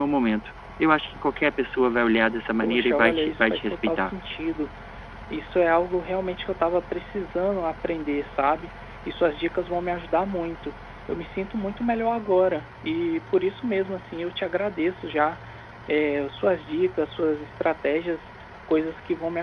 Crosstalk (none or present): present